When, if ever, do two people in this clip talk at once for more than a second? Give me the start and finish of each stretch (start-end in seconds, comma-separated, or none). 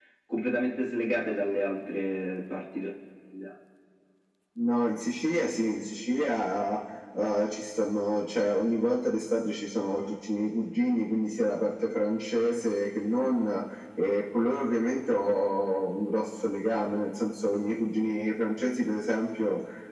none